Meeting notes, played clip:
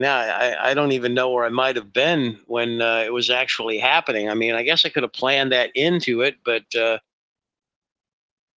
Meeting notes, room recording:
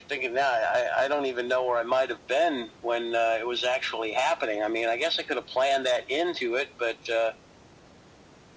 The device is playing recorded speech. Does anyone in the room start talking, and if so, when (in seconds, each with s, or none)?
none